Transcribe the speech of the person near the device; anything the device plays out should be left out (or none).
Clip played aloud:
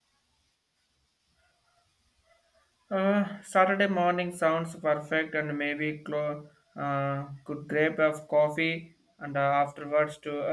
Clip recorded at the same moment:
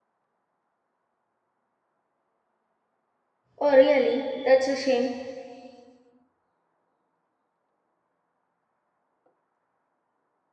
Oh, really? That's a shame.